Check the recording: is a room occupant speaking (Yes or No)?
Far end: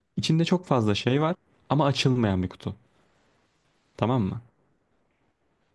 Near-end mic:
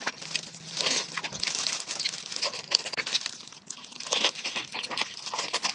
No